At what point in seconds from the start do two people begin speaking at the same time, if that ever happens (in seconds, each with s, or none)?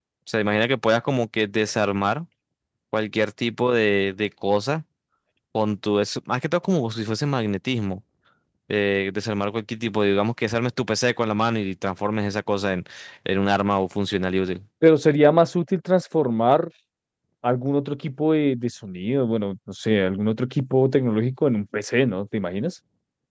none